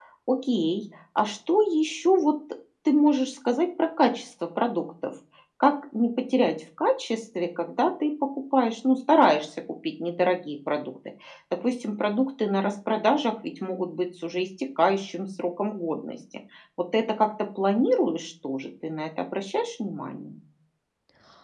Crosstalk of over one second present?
No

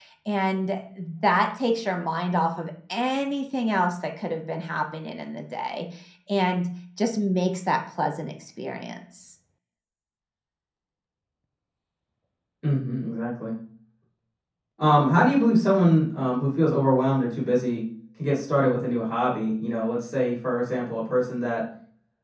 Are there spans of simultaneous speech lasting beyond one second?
No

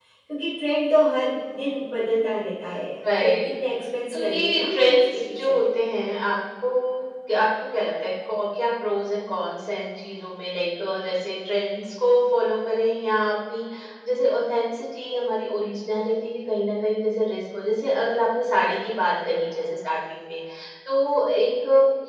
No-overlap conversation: No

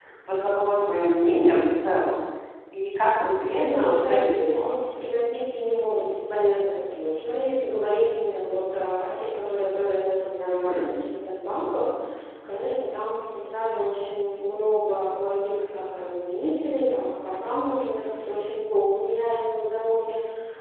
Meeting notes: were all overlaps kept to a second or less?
No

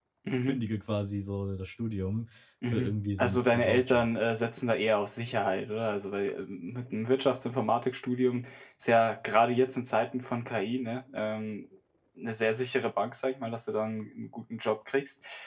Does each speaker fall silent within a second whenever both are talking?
No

